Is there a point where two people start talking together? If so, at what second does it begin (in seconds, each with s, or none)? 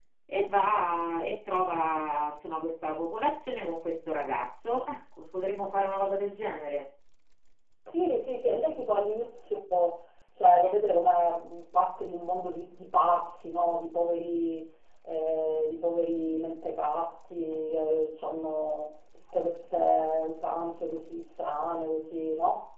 none